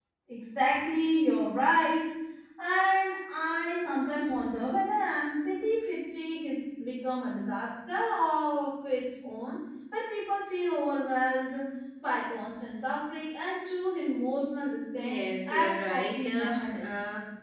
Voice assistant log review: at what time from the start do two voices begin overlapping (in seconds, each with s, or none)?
14.9 s